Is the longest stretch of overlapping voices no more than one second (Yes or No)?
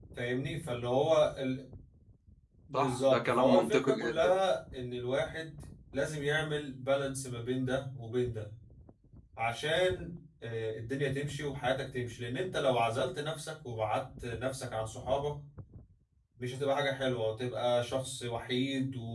No